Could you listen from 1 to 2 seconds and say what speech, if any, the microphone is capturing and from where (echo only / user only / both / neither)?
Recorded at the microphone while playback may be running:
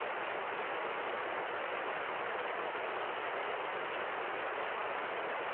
neither